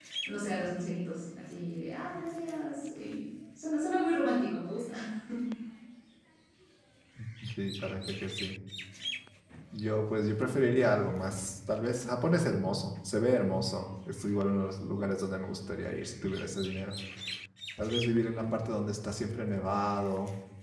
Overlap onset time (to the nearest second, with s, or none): none